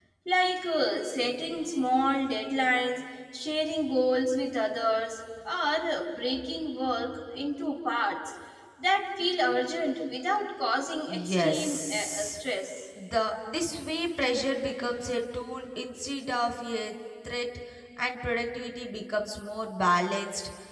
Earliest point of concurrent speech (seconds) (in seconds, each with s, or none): 11.1 s